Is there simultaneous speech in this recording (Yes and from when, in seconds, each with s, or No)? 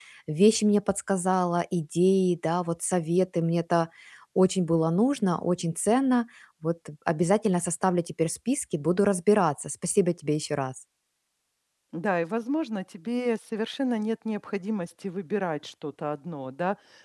No